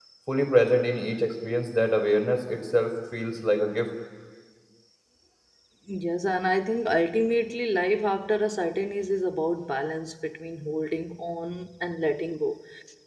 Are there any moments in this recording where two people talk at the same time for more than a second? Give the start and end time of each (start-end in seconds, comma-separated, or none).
none